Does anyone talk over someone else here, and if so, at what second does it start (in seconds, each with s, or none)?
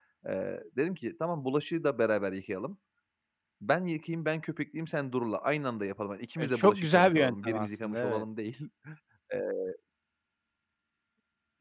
6.4 s